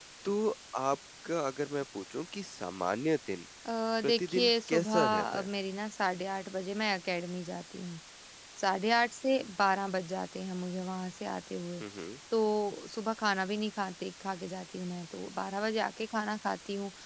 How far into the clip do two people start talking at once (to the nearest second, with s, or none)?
4 s